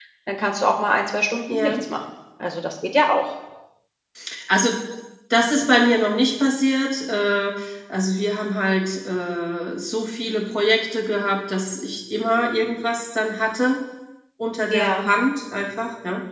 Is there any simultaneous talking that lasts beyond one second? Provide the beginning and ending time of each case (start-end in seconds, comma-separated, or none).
none